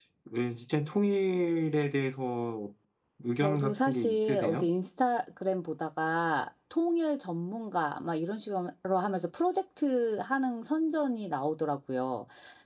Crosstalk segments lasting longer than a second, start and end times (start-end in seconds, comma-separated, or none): 3.4-4.7